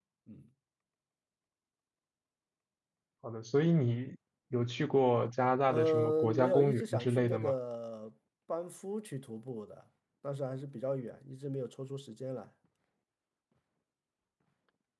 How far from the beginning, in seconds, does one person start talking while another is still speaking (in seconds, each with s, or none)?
5.7 s